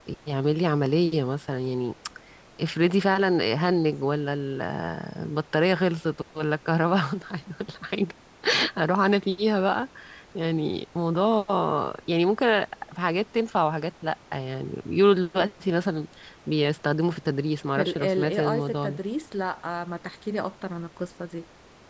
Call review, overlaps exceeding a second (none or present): present